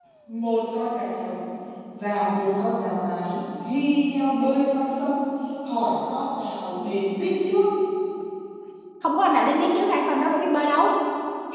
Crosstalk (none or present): none